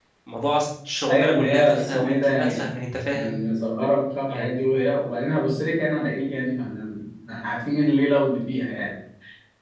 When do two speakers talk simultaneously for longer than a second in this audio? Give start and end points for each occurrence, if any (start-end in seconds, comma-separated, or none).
1.1-2.6